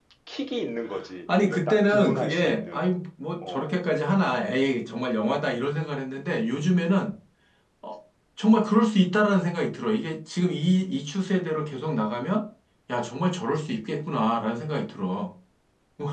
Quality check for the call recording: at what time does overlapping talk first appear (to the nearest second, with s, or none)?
1 s